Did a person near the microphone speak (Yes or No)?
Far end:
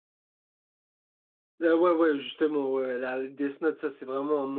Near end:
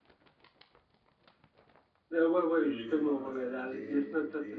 Yes